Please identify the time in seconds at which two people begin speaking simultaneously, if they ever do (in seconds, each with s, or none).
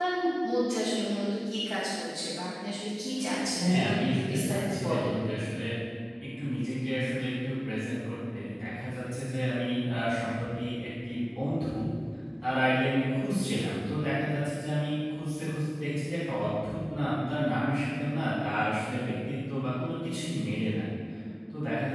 3.4 s